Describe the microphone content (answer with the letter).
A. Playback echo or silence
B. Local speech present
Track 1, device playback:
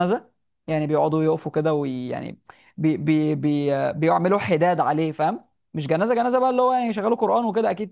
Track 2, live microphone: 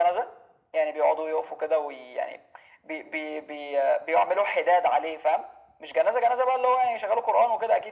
A